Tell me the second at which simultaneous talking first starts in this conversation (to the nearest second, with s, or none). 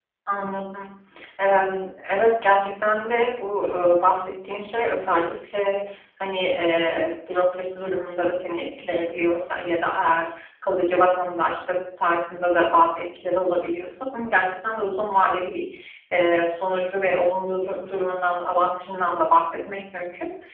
none